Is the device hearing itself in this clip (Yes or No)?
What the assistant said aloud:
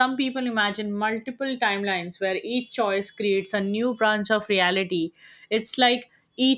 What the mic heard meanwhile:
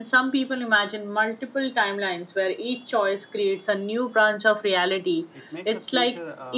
Yes